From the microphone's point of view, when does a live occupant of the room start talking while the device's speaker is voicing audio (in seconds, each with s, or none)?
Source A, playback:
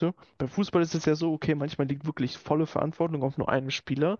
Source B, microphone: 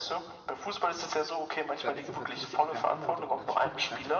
1.8 s